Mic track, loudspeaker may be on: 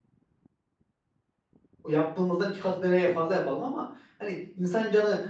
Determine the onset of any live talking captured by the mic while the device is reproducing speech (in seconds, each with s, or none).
1.9 s